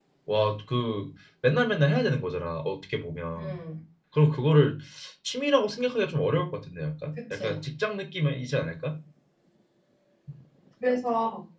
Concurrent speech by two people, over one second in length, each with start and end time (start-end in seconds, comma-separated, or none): none